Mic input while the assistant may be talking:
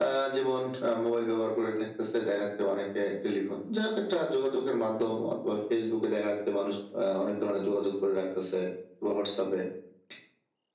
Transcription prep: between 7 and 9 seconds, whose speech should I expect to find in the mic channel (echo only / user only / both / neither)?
echo only